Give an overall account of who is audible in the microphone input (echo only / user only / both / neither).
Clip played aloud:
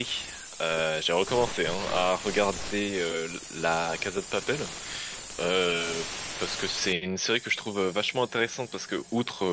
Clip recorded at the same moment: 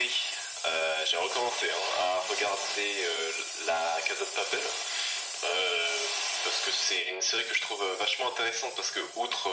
echo only